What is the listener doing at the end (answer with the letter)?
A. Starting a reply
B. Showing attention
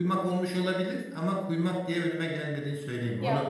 A